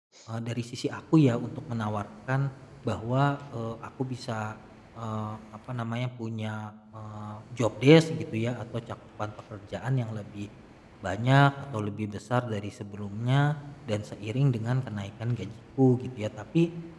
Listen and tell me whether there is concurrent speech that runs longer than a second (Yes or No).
No